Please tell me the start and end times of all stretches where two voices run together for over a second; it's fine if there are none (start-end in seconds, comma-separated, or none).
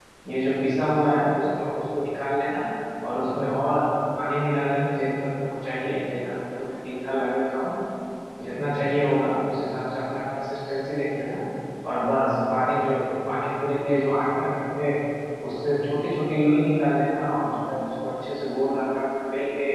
none